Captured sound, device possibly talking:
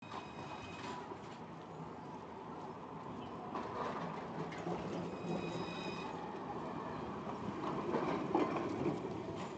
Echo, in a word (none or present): none